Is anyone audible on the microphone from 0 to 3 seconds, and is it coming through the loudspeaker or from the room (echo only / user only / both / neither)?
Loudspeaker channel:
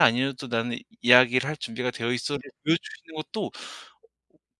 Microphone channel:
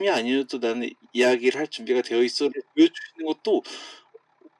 echo only